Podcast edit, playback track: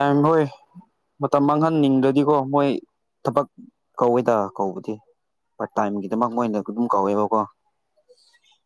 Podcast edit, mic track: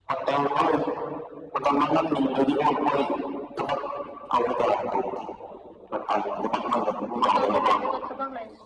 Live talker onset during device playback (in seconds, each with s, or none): 7.2 s